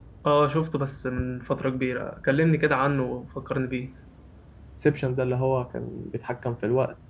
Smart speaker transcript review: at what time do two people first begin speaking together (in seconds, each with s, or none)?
none